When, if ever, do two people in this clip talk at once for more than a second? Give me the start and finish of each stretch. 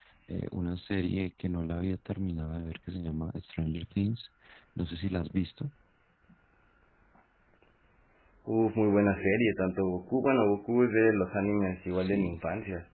none

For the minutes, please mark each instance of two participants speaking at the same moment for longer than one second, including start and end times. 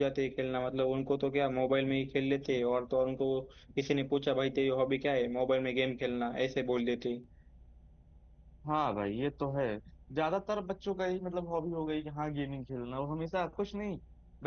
none

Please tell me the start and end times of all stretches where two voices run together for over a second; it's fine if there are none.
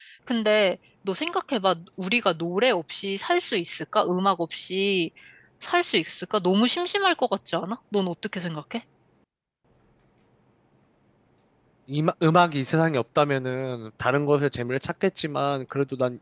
none

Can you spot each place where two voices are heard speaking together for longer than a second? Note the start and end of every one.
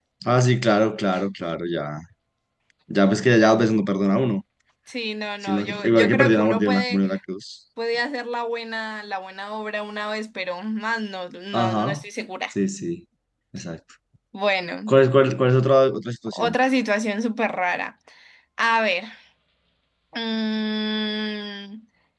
5.4-7.0

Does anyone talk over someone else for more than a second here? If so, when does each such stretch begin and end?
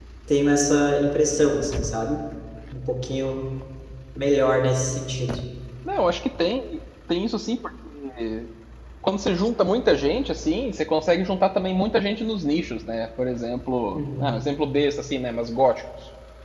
none

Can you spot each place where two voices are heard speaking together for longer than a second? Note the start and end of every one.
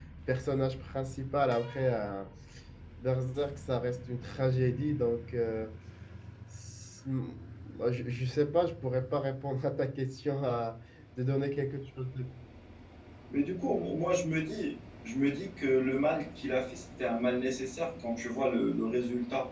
none

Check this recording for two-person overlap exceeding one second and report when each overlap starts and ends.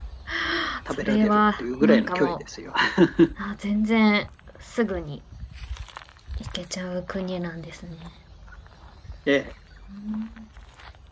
0.9-2.3

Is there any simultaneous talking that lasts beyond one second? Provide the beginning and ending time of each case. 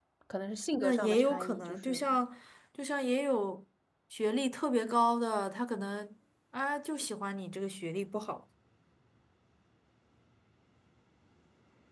0.7-2.0

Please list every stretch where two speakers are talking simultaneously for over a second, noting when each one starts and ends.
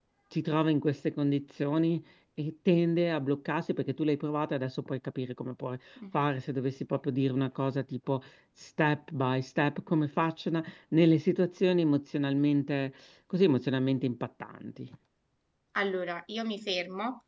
none

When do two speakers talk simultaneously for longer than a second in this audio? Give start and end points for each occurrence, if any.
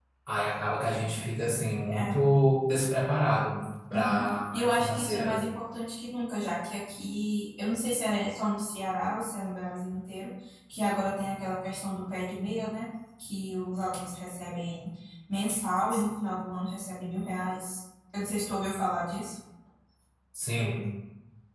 3.9-5.3

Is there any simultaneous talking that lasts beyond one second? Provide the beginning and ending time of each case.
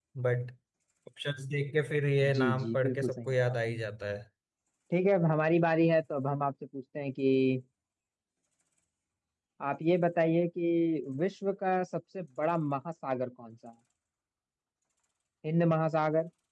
2.3-3.8

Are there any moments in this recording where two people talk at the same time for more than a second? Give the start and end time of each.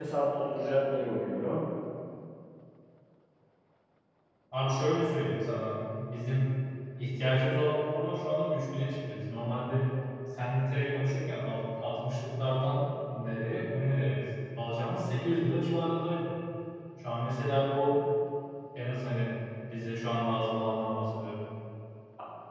none

